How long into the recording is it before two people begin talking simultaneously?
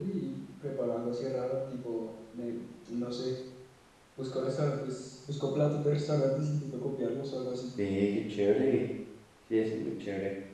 none

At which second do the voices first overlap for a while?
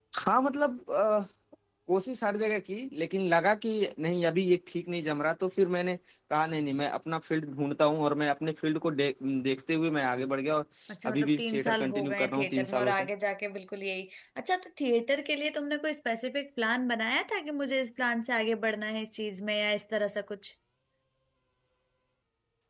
11.1 s

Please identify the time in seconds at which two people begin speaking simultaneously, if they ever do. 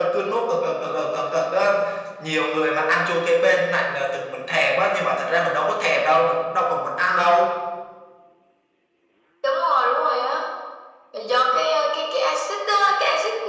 none

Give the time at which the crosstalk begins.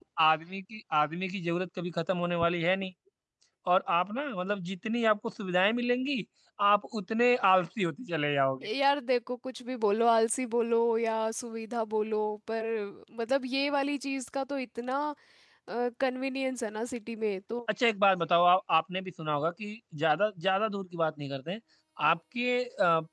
none

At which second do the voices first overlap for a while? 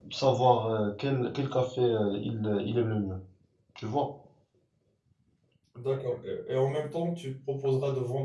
none

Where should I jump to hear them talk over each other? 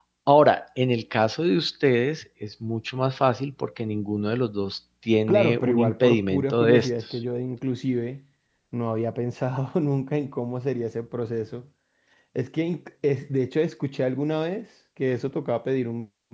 5.3 s

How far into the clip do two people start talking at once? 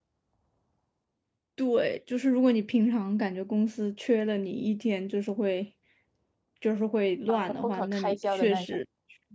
7.3 s

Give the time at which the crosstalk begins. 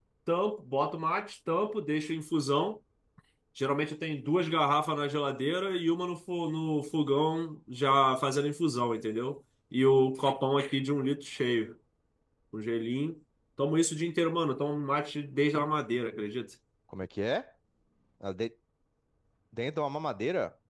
none

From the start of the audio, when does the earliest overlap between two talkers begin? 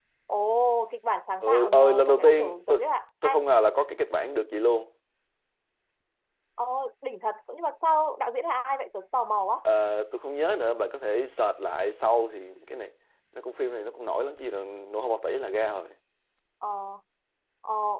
1.4 s

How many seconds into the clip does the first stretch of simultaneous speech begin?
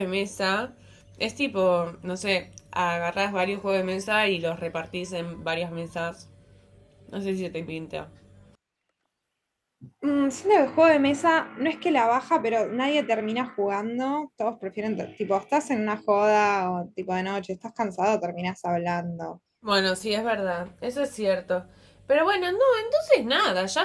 none

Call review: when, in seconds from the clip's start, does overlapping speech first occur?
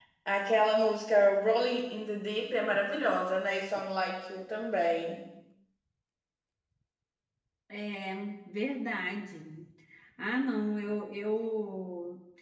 none

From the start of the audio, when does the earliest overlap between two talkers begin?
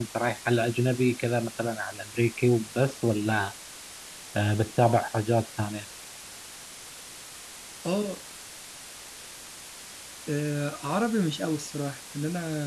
none

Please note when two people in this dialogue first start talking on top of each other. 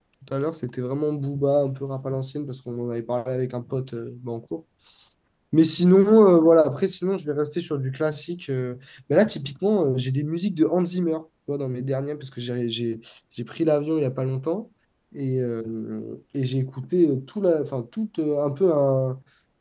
none

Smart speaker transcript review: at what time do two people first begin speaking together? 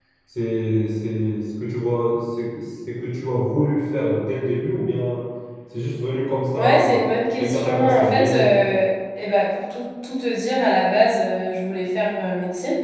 6.5 s

